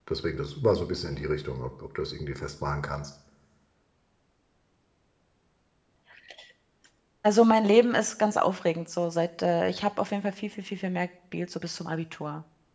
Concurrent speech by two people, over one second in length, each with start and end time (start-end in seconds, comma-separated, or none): none